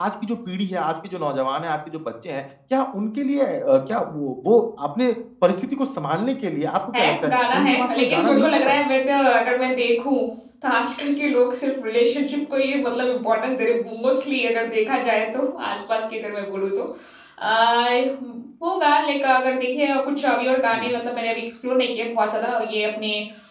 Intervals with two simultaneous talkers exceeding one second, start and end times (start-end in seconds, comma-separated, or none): 7.0-8.8